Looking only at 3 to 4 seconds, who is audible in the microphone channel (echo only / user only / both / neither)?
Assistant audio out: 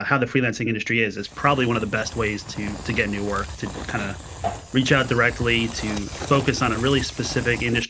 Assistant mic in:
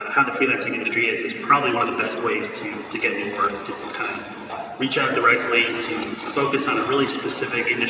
echo only